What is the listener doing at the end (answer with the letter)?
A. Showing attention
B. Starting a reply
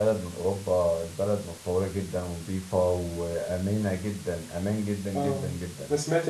B